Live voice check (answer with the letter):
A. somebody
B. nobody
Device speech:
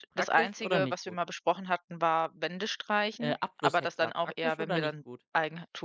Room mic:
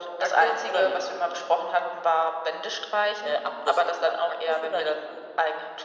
B